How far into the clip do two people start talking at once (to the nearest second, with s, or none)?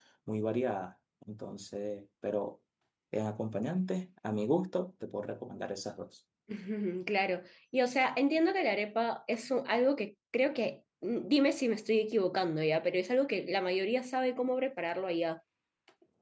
none